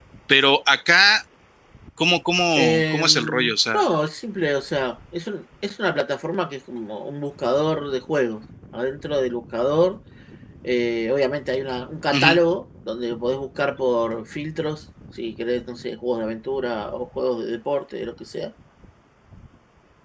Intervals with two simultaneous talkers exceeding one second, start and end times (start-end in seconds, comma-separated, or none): 2.5-3.8